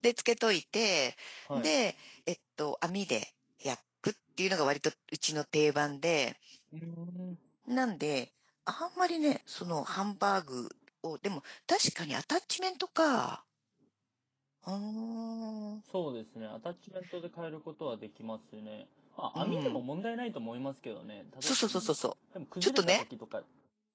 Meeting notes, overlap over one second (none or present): none